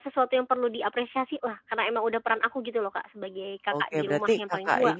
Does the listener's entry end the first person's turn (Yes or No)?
Yes